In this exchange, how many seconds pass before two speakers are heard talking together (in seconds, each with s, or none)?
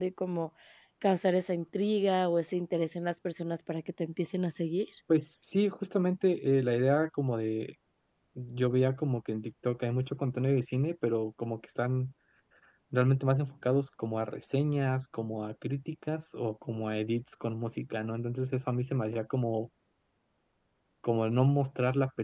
none